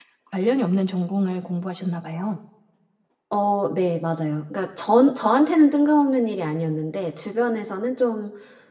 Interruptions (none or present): none